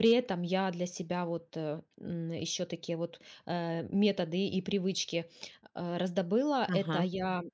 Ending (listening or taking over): listening